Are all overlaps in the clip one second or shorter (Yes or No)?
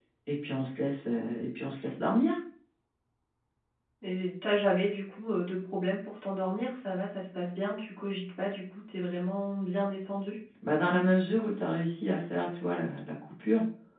Yes